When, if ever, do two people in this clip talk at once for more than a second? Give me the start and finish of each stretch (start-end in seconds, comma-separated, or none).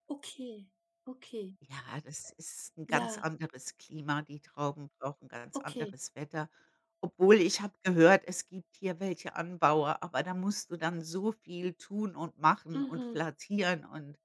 none